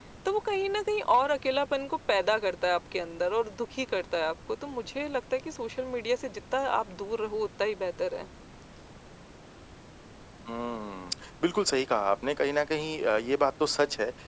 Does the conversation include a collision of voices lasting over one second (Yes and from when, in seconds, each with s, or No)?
No